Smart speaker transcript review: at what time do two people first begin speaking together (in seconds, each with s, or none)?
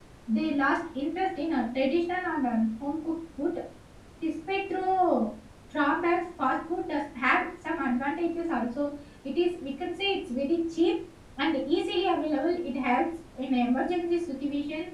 none